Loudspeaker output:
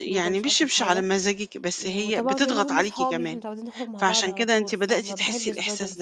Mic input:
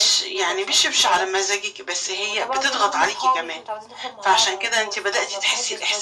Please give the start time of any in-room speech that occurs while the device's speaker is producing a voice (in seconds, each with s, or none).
none